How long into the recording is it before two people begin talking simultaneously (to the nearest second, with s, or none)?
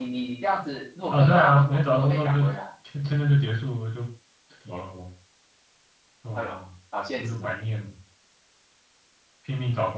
1 s